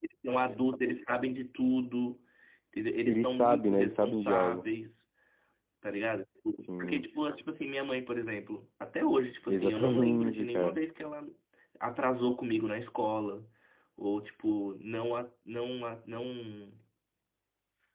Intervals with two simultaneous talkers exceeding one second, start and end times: 3.0-4.7, 9.5-10.8

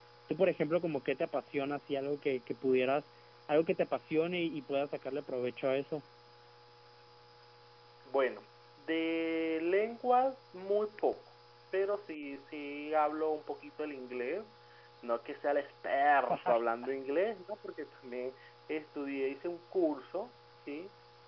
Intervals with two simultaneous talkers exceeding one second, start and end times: none

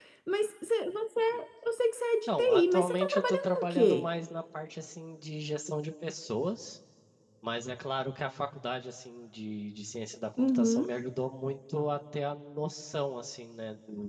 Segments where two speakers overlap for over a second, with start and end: 2.3-4.1

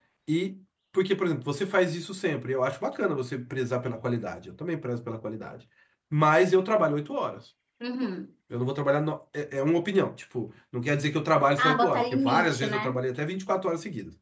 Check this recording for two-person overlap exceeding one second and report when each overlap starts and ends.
11.6-13.0

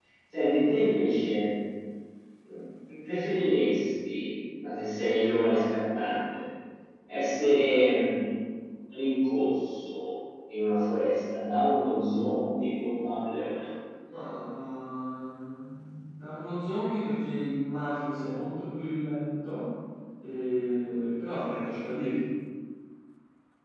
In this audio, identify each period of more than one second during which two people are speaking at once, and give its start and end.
none

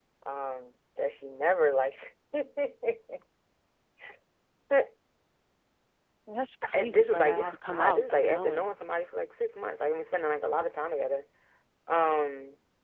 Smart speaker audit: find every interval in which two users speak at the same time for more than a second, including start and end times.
6.7-8.7

